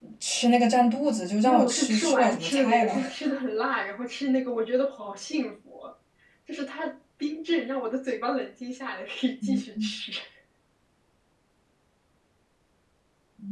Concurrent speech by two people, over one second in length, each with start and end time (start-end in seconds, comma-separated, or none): 1.4-3.0